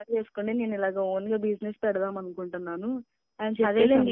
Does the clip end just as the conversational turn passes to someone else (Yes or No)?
Yes